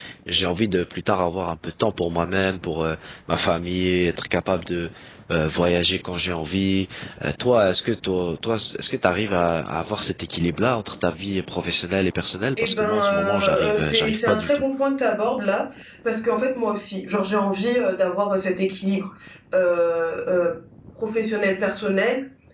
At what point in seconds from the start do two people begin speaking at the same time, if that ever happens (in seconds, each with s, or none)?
12.6 s